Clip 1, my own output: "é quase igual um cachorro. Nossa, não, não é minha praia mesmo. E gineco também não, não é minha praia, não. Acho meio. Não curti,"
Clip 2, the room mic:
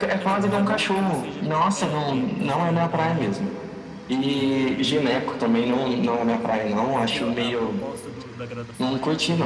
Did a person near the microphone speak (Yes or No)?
Yes